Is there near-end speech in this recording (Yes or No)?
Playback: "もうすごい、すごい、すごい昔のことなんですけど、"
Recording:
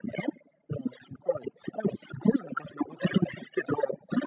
No